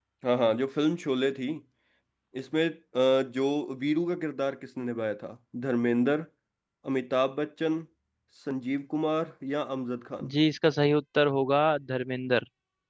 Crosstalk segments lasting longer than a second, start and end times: none

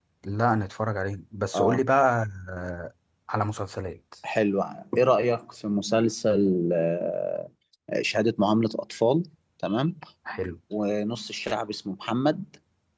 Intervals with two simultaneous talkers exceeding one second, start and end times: none

